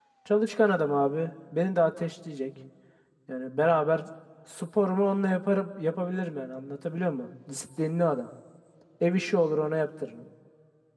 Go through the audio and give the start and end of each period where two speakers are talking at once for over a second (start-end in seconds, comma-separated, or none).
none